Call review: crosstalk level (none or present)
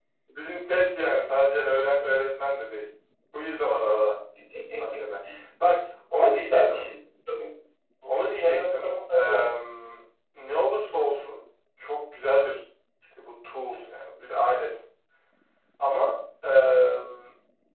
present